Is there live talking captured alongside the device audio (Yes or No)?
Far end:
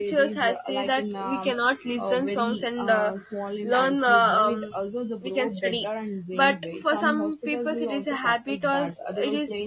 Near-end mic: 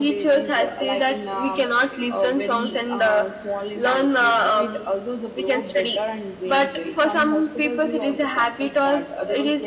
No